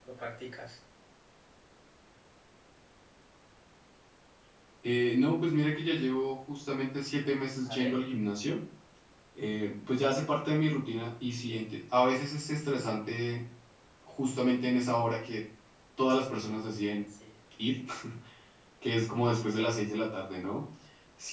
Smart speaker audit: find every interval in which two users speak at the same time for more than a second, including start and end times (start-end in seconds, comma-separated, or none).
none